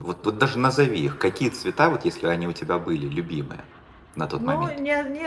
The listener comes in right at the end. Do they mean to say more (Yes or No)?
Yes